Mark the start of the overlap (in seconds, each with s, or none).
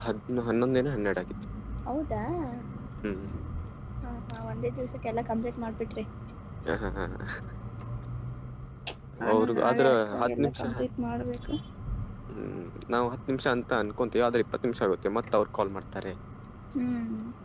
9.3 s